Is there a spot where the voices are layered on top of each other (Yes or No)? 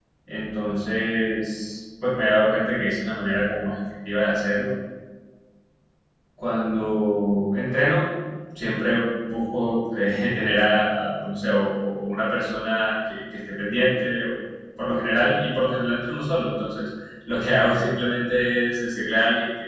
No